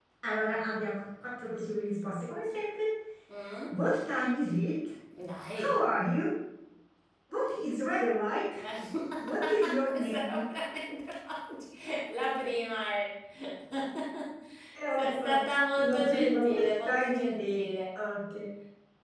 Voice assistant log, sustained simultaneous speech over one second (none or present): present